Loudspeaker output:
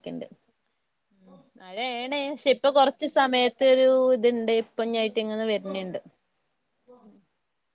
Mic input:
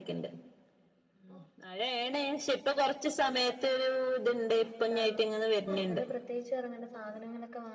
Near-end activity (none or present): present